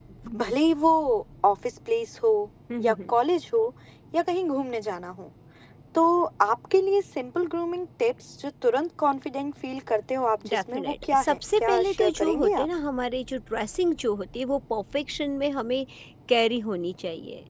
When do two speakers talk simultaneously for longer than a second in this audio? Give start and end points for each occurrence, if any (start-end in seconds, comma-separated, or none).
10.5-12.7